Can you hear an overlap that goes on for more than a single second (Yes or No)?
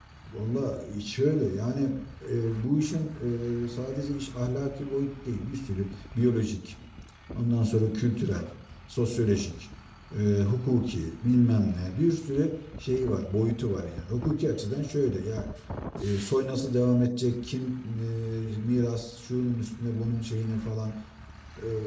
No